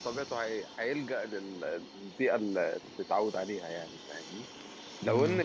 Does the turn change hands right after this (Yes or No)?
No